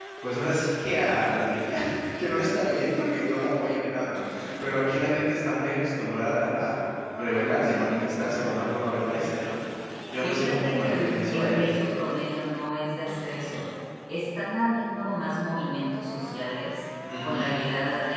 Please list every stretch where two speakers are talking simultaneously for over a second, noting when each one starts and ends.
10.2-11.6

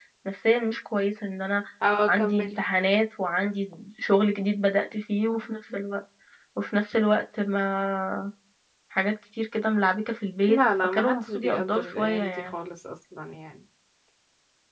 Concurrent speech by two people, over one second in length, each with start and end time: 10.5-12.5

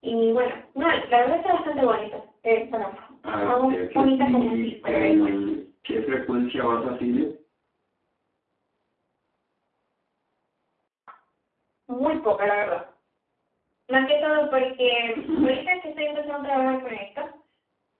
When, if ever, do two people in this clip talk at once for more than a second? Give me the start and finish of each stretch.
3.4-5.3

